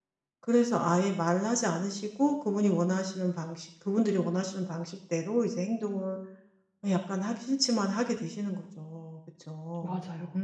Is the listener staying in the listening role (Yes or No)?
Yes